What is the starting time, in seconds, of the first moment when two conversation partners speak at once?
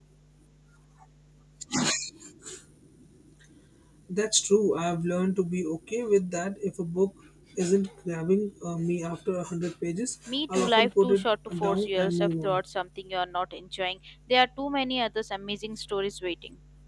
10 s

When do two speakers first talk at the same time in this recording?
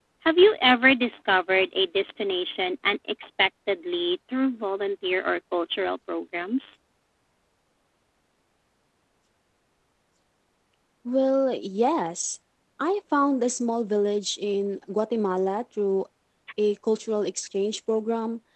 none

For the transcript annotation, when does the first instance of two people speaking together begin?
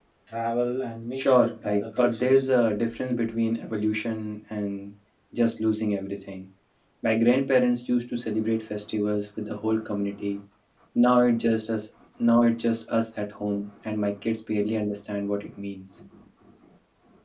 1 s

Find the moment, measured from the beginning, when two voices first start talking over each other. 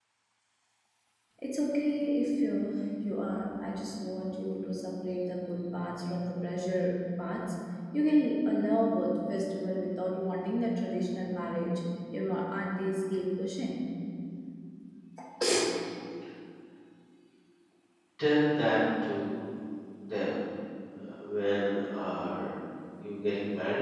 none

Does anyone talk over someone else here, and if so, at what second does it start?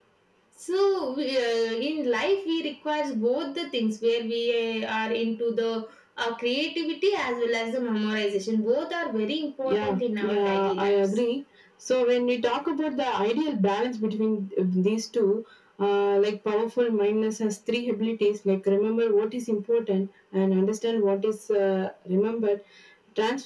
10 s

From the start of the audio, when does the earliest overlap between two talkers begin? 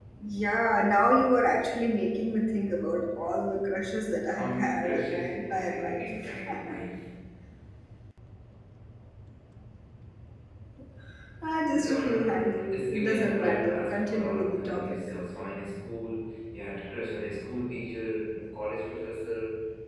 4 s

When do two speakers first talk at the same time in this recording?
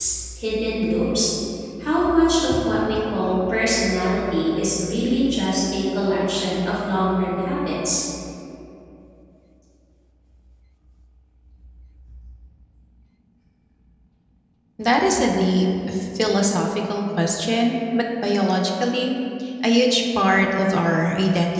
none

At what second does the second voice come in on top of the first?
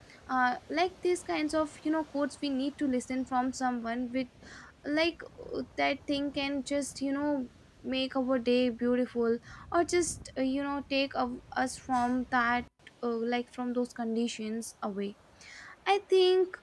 none

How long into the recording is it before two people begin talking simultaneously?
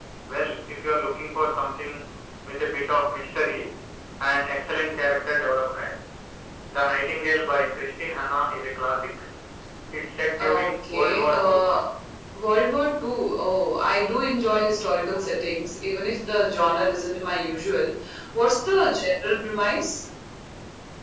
10 s

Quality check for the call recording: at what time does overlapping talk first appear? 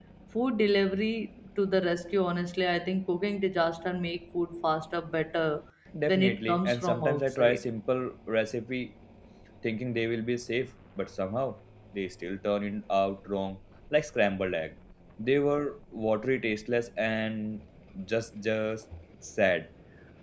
6 s

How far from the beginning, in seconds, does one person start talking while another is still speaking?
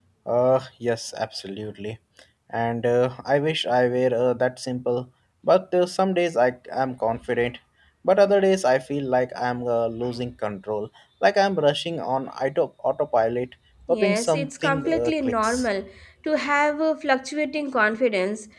14 s

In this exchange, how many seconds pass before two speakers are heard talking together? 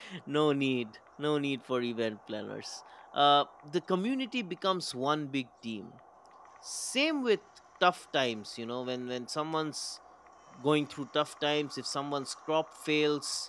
none

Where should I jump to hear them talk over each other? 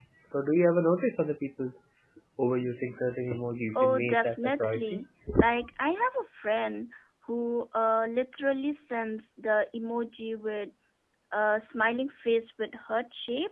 4 s

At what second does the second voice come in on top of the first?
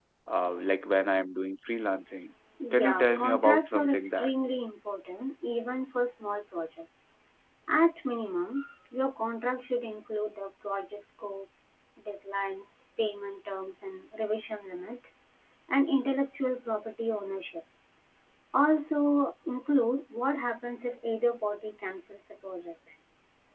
3 s

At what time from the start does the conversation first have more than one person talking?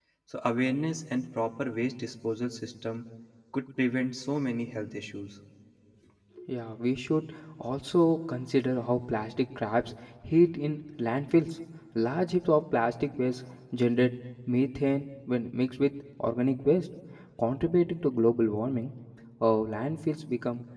none

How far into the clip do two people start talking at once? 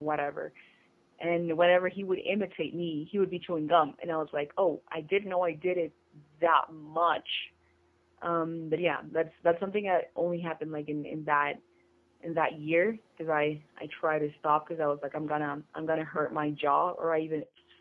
none

